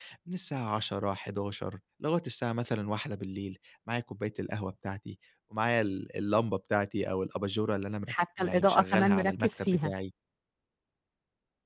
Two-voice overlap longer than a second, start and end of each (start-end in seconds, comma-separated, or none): 8.1-9.9